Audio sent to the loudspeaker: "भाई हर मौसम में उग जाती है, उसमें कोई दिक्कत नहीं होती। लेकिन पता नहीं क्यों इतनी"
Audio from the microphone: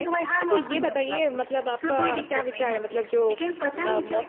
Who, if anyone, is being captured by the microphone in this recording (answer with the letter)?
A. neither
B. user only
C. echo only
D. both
D